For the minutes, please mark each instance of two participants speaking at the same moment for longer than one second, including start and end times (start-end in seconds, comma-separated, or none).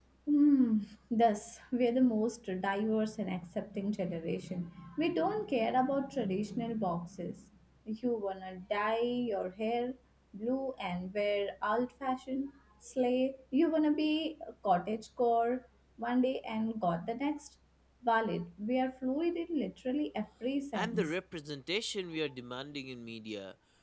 none